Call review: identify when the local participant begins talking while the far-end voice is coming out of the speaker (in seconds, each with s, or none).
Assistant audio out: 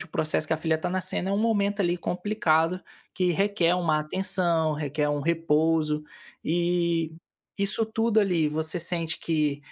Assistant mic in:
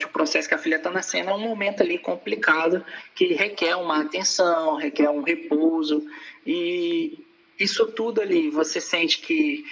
none